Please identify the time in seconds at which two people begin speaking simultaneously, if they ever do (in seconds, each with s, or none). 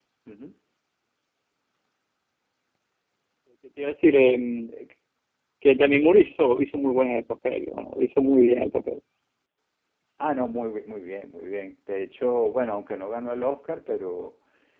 none